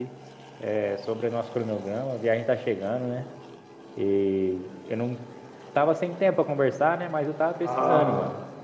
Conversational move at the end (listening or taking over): taking over